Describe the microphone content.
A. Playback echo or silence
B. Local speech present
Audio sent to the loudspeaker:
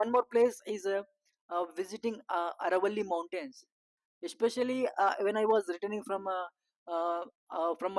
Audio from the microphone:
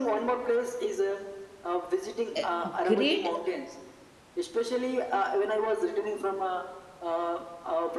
B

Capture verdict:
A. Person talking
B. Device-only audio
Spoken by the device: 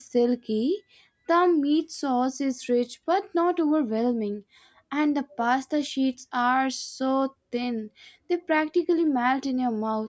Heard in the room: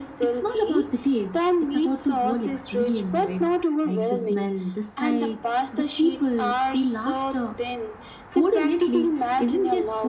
A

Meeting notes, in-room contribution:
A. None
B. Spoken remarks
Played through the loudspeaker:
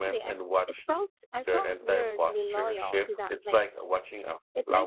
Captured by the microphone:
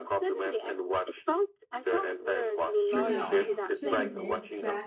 B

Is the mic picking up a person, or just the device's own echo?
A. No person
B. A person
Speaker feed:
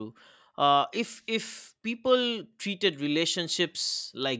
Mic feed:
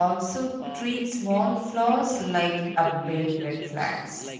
B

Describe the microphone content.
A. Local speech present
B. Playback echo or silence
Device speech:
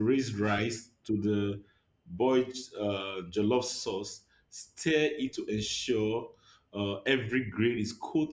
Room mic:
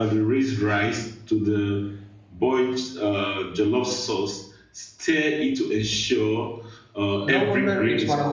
A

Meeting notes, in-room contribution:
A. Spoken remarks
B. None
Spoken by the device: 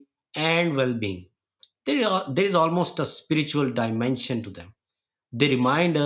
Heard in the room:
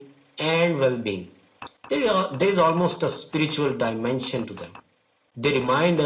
B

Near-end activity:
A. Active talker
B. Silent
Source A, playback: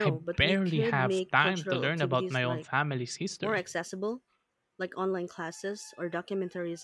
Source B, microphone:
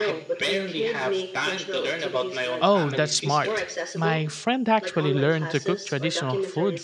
A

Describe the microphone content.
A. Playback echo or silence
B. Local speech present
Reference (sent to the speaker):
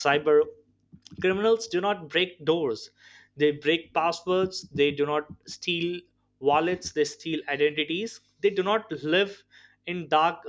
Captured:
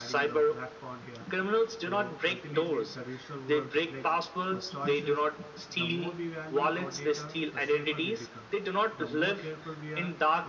B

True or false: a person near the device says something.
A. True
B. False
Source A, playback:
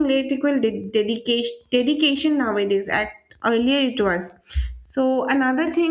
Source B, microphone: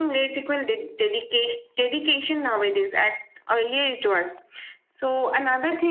B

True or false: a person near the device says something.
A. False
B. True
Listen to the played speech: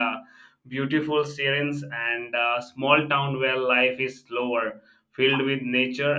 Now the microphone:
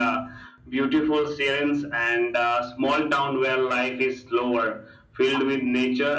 A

